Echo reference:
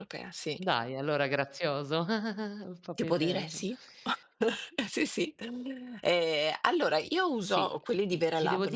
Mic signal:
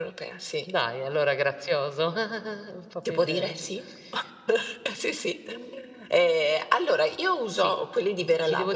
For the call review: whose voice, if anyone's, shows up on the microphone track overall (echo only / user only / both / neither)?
echo only